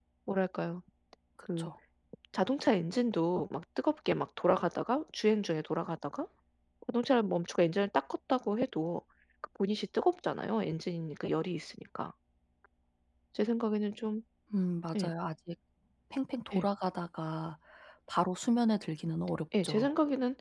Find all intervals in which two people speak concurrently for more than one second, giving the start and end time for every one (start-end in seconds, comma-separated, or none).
none